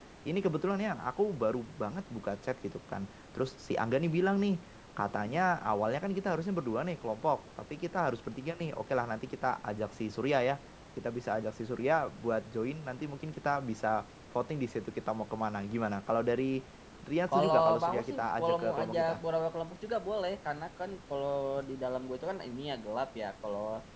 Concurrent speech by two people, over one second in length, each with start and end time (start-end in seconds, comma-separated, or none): 17.3-19.2